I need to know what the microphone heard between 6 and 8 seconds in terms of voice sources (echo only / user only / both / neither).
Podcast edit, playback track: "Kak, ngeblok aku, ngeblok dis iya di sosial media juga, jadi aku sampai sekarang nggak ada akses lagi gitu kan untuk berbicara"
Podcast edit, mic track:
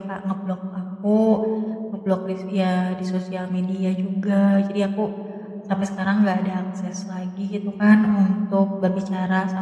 echo only